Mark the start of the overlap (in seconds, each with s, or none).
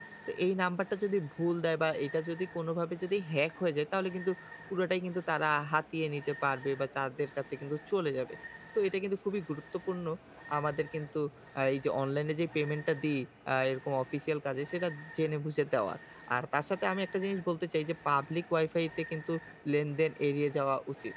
none